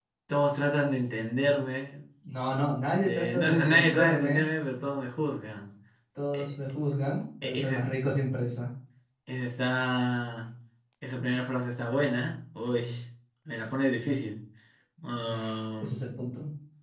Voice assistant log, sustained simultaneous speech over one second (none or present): present